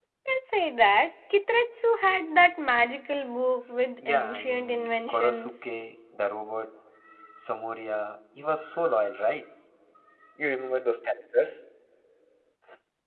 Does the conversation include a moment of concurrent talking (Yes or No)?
Yes